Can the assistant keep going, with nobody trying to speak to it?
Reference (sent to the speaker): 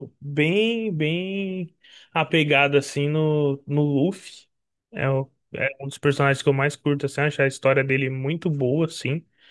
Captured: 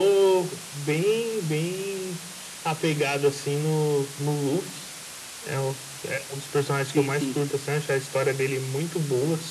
No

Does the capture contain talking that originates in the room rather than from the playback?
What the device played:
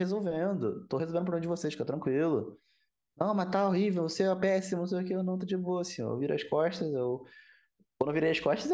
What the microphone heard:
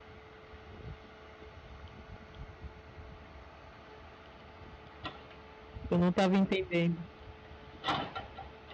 Yes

